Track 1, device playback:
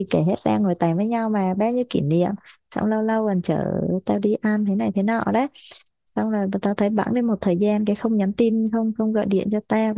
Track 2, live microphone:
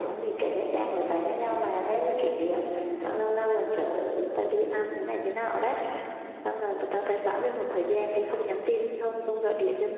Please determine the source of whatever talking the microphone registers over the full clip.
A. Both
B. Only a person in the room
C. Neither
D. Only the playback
D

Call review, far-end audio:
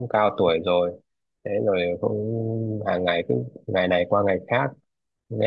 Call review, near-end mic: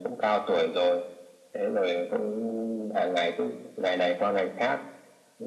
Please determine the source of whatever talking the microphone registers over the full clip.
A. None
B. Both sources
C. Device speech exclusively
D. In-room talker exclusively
C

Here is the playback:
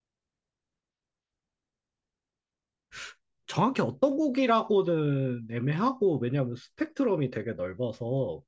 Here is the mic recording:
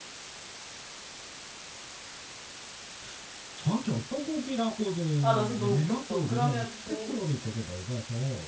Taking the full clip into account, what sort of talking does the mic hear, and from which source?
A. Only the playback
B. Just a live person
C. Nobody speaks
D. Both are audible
D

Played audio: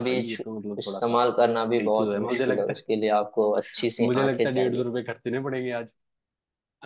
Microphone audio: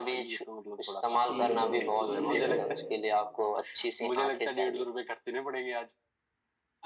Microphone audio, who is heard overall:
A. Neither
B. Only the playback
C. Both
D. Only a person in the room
C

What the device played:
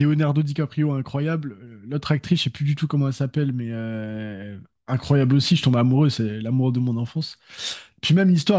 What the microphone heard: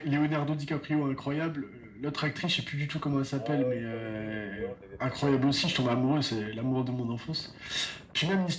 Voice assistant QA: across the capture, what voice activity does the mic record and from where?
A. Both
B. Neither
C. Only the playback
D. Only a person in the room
A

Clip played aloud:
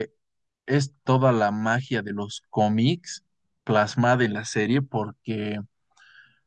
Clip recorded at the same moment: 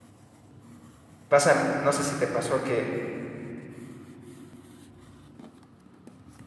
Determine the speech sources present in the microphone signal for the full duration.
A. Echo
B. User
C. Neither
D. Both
B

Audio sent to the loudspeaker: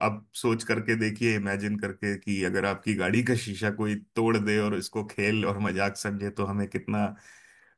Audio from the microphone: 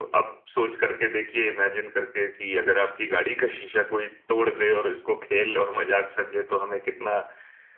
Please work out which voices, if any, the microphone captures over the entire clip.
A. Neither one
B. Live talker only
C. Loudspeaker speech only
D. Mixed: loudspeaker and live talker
C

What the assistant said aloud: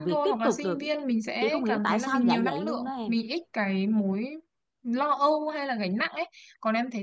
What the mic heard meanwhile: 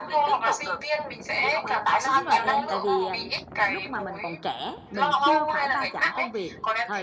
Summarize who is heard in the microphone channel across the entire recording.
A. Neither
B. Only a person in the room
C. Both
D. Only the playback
C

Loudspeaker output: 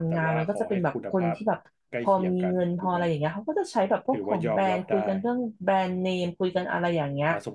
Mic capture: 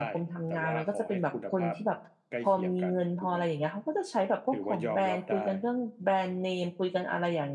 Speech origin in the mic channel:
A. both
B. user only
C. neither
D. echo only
D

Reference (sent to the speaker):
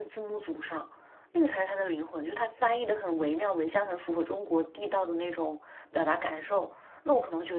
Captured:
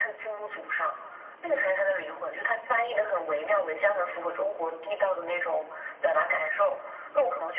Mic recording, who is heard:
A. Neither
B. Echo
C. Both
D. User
B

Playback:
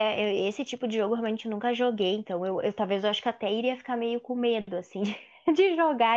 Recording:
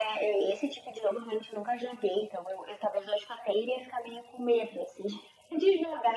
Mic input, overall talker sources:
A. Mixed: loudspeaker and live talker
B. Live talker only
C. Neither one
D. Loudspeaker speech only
D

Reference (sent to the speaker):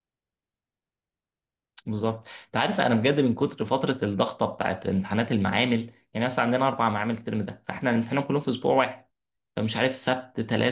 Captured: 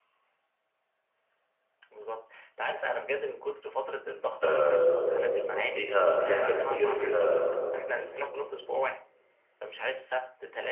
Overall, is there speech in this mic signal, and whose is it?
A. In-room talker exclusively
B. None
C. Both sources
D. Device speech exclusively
C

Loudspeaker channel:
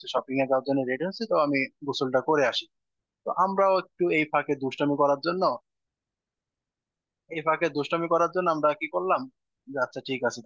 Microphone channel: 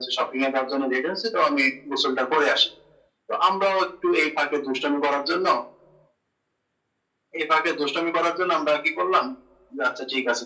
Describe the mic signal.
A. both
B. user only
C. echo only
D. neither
C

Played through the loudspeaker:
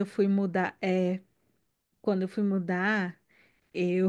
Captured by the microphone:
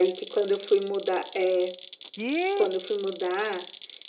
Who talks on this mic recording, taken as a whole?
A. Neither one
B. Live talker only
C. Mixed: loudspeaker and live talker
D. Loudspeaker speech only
C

